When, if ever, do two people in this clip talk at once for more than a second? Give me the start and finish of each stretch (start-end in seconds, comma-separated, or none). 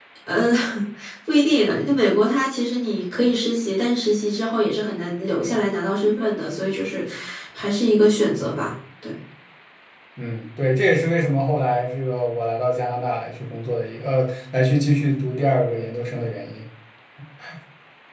none